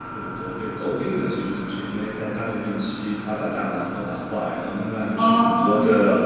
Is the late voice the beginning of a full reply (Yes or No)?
No